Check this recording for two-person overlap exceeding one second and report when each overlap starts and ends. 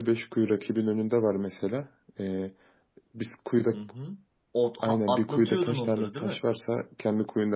4.8-6.4

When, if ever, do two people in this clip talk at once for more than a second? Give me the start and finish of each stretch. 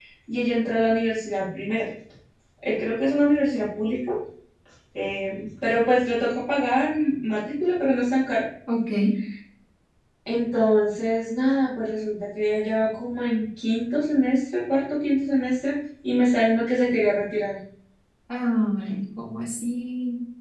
none

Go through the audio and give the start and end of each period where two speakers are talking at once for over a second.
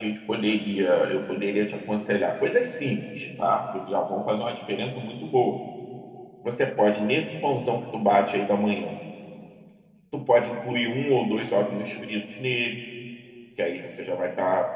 none

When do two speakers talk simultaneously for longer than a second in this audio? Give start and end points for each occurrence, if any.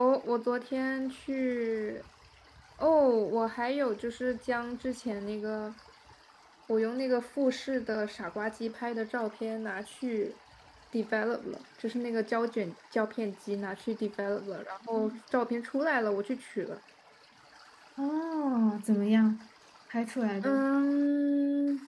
none

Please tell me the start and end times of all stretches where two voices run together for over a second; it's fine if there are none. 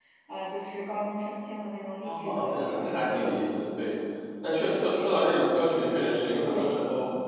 2.0-3.2

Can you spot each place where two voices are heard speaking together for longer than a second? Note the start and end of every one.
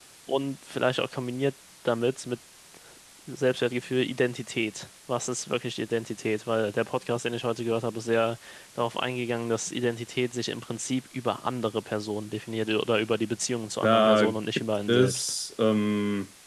13.8-15.3

